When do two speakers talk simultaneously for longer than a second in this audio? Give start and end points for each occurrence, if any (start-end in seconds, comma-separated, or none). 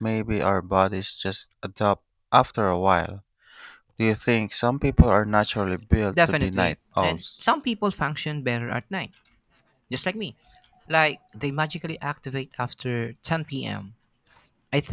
6.1-7.5